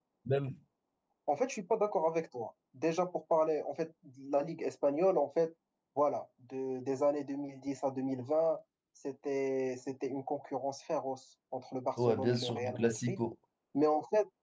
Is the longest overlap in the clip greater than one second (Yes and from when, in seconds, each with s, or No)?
Yes, from 12.0 s